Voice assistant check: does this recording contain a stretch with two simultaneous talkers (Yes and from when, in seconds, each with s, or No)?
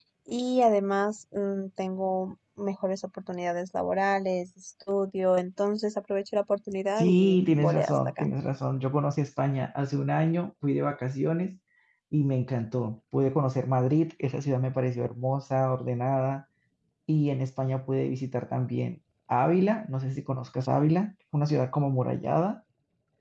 Yes, from 7.0 s